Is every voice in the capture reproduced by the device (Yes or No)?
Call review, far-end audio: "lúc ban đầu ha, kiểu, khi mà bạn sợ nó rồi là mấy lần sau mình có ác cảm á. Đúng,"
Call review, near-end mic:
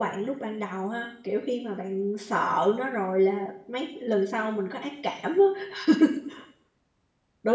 Yes